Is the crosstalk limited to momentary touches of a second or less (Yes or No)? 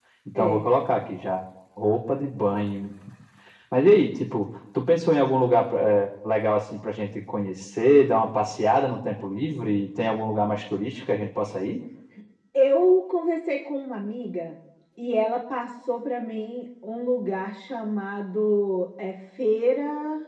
Yes